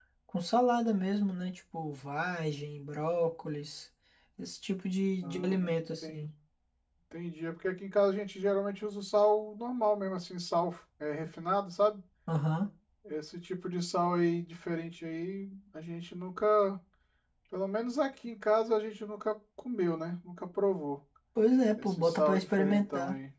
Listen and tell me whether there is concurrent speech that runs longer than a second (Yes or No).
Yes